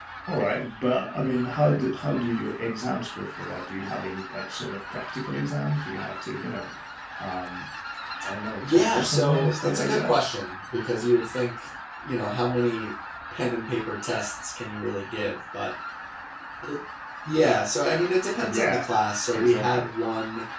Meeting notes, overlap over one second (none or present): present